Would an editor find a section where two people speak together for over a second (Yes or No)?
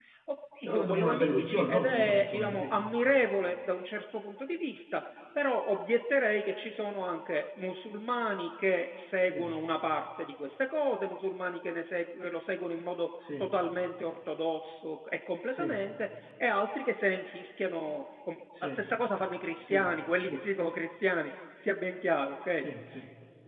Yes